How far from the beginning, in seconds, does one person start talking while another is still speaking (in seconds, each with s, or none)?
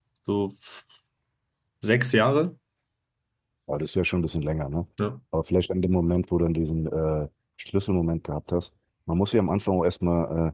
none